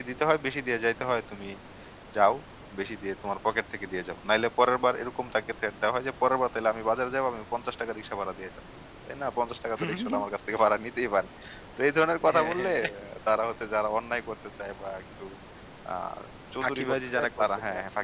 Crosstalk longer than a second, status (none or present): present